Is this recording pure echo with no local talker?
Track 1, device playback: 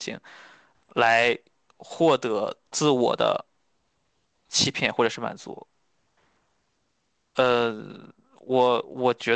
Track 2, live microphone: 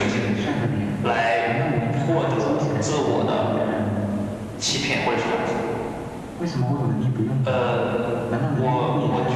No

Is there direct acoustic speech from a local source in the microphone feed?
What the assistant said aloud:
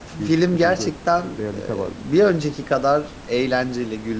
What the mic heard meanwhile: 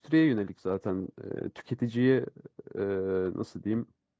Yes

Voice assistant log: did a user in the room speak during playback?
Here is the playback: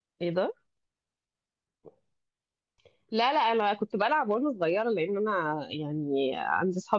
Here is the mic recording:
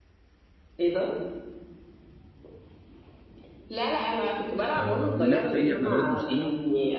Yes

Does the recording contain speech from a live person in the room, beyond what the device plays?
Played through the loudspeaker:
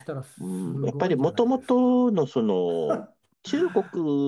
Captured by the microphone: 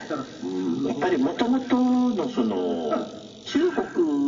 No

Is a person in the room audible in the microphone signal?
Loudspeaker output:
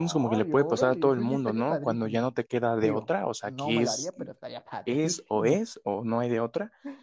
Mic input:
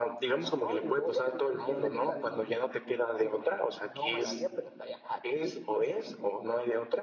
Yes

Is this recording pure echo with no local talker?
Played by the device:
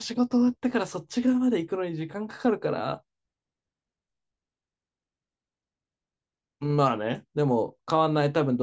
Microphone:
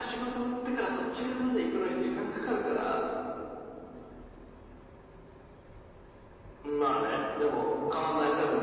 Yes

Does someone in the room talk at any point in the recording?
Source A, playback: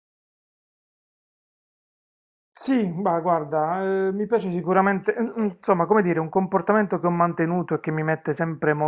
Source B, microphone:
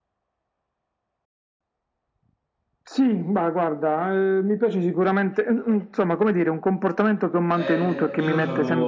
Yes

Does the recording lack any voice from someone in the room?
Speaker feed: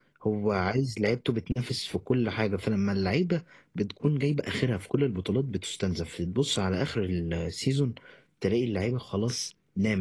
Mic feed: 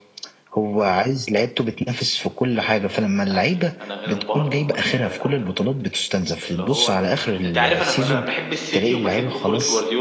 No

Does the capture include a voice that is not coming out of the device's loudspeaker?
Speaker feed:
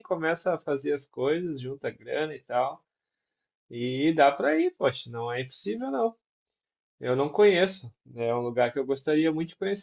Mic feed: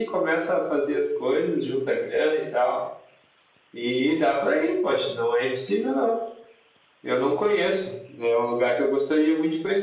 No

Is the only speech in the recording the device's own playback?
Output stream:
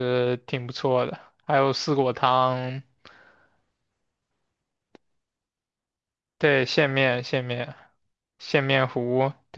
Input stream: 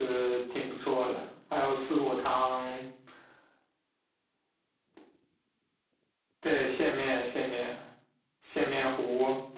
Yes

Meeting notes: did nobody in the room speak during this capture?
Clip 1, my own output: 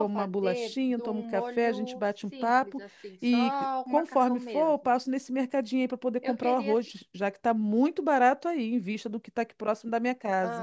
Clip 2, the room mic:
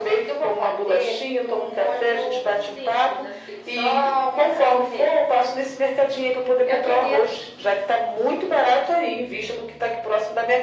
Yes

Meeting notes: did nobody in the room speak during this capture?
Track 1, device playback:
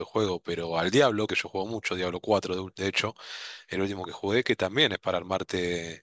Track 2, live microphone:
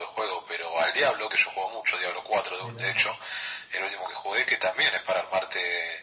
No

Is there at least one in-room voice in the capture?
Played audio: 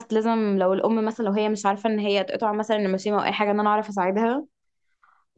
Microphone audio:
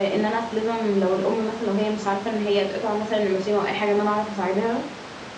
No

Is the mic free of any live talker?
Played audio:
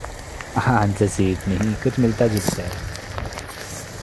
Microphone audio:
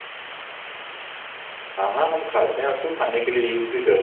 No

